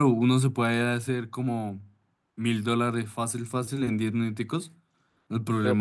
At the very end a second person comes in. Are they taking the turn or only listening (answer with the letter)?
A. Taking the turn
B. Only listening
B